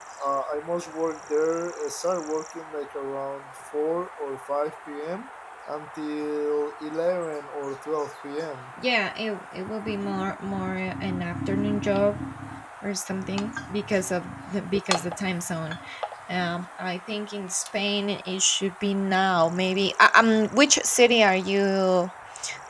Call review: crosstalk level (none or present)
none